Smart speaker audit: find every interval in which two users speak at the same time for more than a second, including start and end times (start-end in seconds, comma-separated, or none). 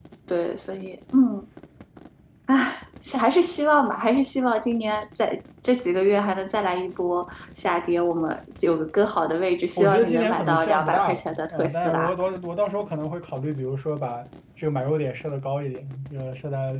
9.8-12.2